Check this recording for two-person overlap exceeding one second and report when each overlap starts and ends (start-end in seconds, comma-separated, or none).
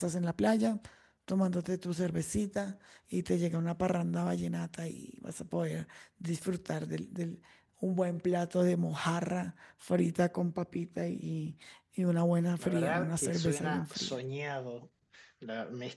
12.6-14.2